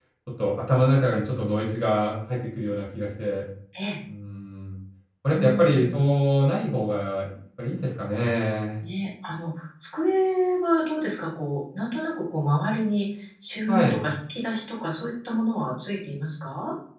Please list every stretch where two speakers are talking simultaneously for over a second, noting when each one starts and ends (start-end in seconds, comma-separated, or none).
none